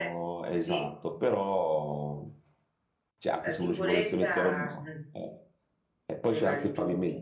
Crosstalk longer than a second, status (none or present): present